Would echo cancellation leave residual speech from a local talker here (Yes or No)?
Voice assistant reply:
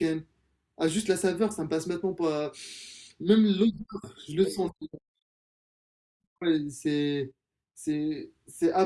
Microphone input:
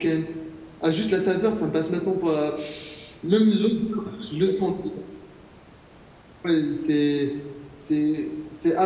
No